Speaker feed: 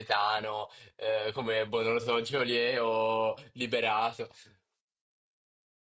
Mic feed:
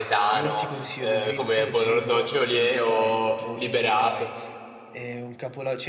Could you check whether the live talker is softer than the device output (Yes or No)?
Yes